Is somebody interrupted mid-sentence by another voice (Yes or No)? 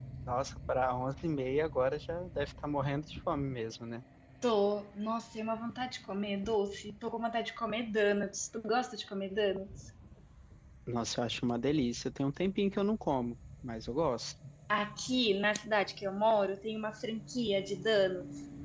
No